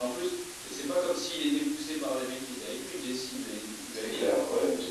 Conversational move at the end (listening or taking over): taking over